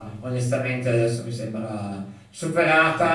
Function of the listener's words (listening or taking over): listening